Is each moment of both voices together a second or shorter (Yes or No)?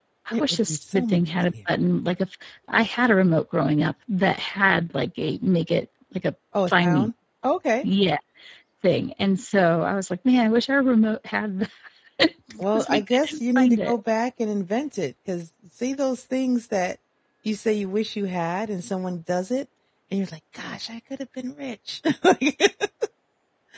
No